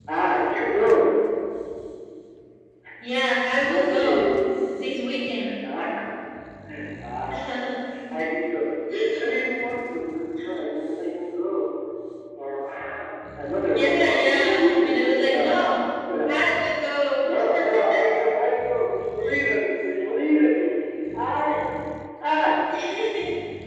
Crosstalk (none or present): present